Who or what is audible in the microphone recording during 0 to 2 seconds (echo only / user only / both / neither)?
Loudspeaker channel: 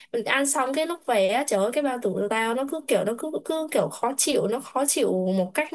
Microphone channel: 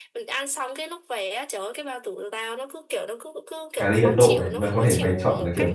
echo only